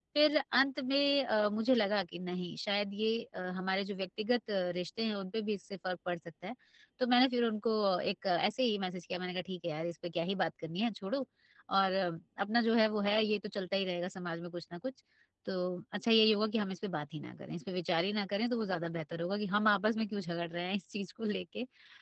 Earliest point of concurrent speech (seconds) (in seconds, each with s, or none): none